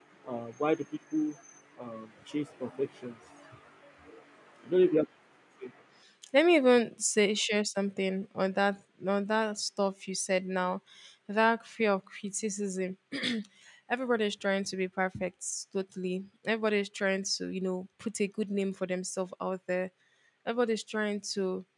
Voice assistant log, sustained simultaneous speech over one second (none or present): none